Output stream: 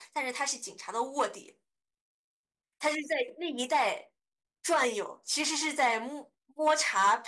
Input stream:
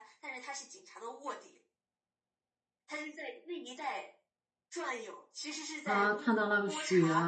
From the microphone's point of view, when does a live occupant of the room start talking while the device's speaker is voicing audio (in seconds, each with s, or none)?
5.8 s